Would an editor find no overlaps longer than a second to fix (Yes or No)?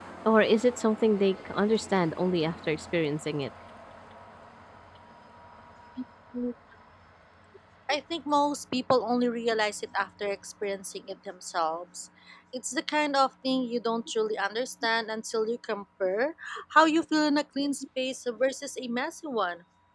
Yes